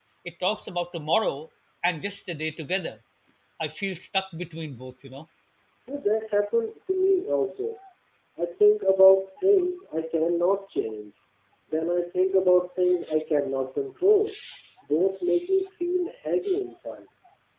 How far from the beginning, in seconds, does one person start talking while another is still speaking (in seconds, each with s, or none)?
none